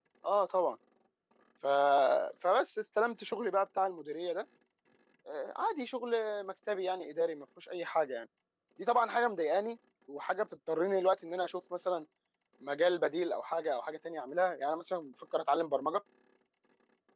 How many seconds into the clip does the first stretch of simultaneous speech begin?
none

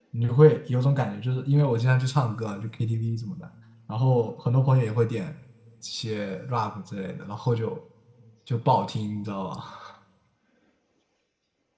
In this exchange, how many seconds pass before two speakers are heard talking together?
none

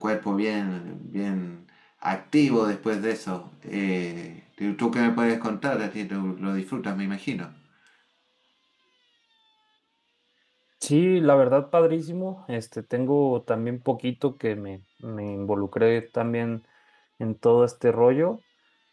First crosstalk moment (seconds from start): none

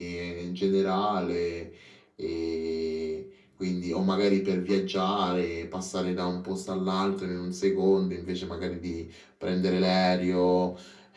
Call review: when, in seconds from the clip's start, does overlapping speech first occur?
none

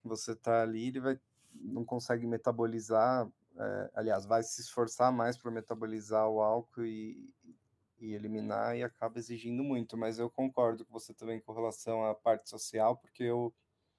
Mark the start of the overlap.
none

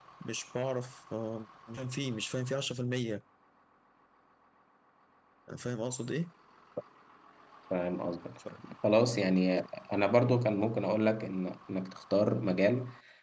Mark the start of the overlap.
none

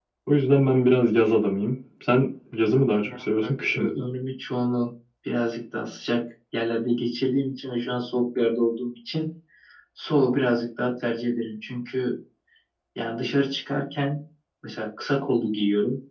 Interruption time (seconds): 2.7 s

